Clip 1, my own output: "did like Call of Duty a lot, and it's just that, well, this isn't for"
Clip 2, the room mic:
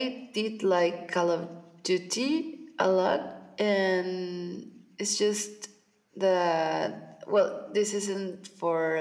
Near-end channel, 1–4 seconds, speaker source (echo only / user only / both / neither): echo only